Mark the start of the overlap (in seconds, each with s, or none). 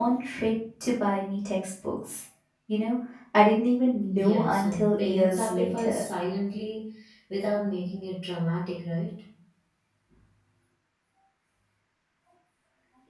4.1 s